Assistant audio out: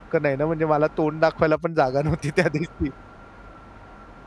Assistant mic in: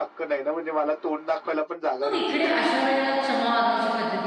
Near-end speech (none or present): present